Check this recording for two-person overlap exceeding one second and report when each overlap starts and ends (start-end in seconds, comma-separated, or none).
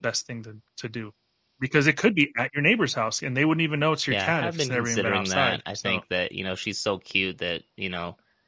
4.1-6.0